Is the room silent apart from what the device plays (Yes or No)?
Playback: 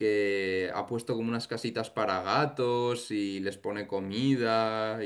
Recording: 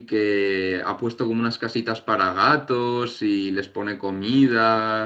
Yes